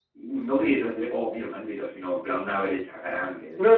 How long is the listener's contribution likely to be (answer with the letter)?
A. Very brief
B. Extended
B